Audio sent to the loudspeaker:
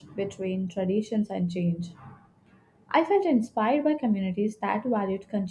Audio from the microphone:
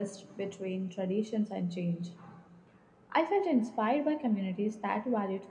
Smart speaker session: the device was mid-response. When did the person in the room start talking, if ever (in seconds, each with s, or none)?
none